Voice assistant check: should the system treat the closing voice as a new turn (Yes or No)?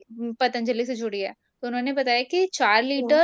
No